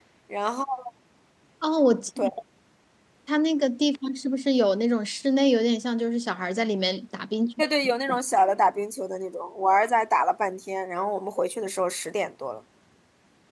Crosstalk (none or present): none